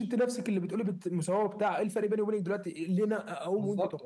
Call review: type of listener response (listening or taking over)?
taking over